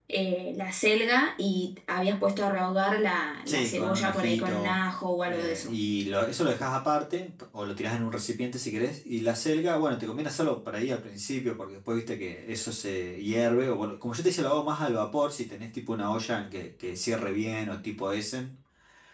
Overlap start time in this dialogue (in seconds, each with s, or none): 3.5 s